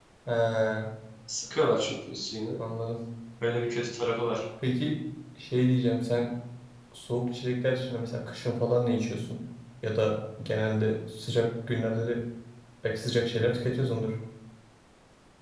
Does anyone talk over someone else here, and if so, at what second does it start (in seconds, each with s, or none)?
none